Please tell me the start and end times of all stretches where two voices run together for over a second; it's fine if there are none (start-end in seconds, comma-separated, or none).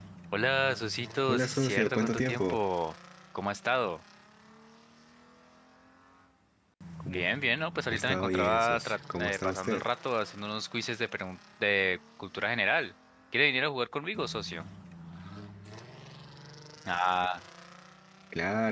1.3-2.6, 7.9-9.8